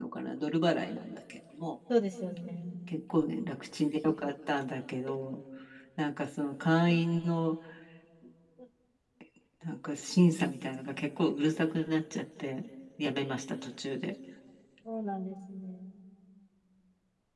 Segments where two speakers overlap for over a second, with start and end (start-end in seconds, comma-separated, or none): none